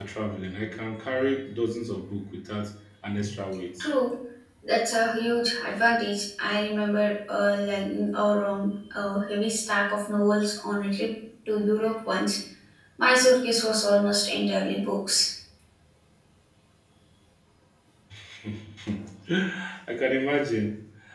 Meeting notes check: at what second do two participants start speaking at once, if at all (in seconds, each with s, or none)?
none